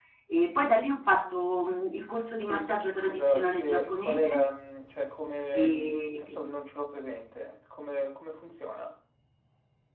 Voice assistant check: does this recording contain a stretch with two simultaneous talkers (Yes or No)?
Yes